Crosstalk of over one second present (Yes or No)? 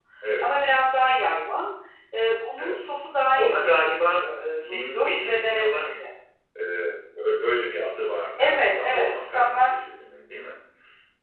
Yes